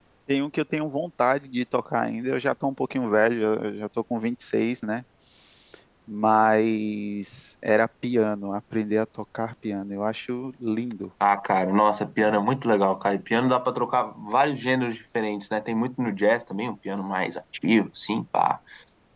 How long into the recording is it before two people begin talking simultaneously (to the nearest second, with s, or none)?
none